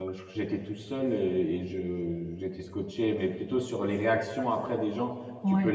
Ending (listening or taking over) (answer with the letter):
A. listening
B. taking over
A